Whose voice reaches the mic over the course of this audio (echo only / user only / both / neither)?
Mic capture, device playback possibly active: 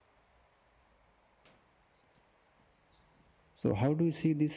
user only